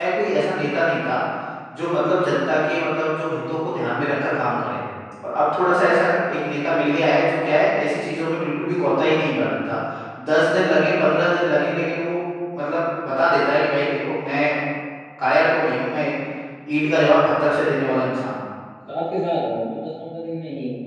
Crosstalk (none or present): none